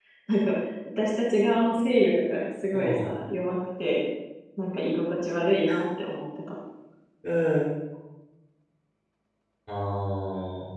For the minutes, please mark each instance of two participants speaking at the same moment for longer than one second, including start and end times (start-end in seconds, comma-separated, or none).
none